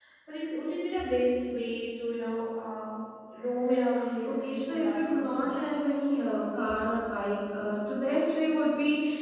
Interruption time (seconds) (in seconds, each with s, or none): 4.3 s